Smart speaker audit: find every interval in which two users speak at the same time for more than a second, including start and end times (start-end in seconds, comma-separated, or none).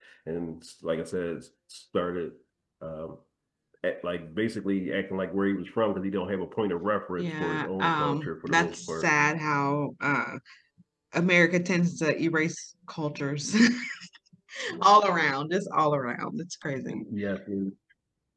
7.2-9.1